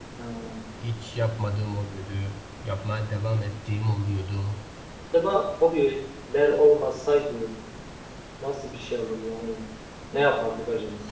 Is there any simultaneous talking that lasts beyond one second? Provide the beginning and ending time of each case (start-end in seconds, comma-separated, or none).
none